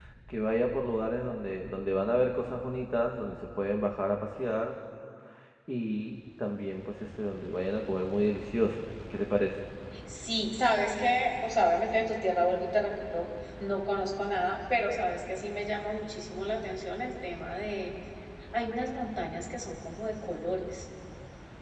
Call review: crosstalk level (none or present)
none